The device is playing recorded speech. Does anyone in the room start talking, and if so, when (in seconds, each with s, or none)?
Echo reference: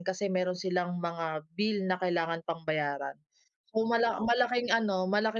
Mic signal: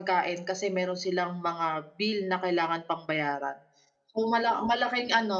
none